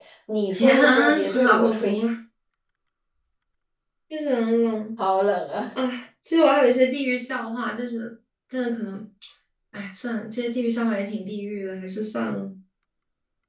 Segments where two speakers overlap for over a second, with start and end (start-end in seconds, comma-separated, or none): 0.5-2.1